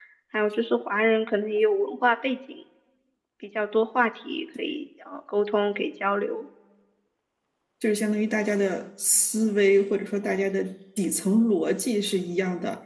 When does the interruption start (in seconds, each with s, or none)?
none